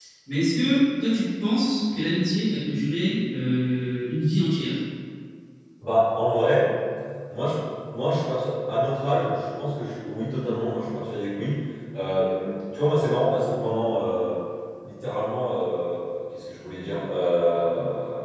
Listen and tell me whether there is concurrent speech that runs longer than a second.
No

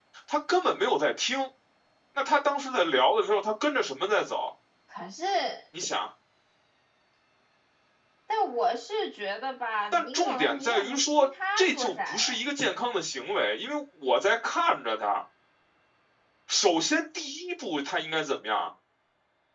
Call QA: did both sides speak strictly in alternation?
No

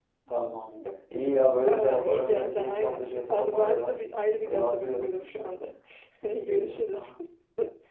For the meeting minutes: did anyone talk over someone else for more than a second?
Yes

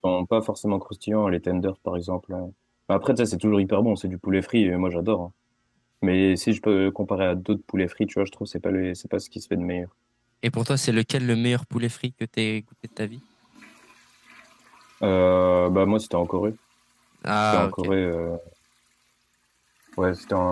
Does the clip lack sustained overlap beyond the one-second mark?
Yes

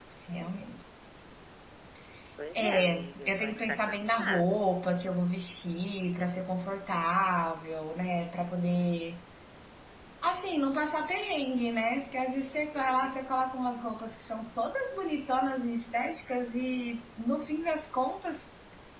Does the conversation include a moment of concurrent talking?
Yes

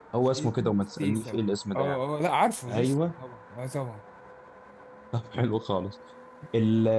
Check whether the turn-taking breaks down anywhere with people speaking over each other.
Yes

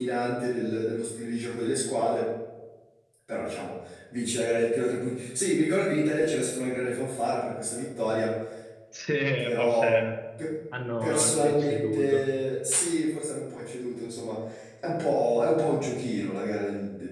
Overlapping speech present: Yes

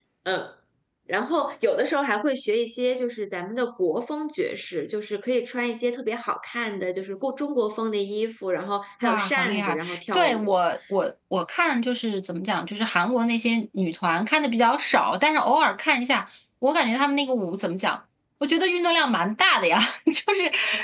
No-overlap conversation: No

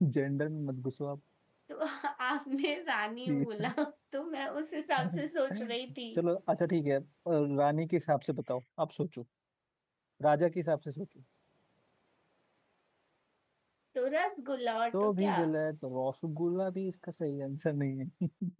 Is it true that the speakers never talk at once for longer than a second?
Yes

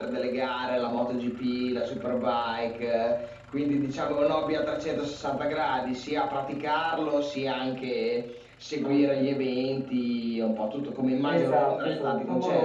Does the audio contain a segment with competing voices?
Yes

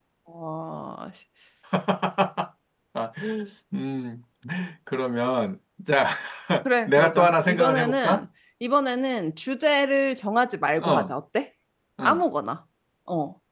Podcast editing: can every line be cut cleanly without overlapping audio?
No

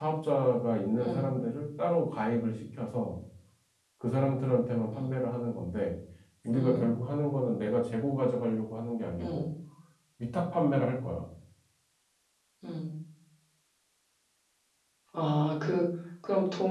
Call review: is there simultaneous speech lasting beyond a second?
No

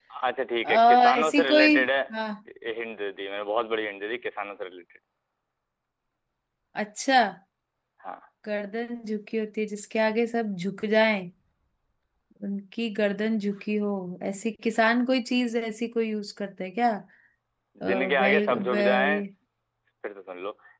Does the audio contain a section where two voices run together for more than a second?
Yes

